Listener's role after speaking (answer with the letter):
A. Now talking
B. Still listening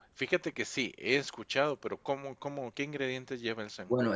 A